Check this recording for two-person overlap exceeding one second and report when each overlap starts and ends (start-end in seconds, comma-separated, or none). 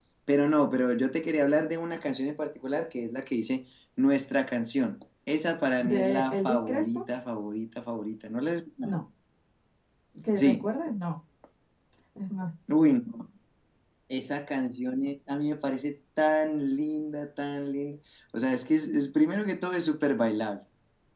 5.8-7.0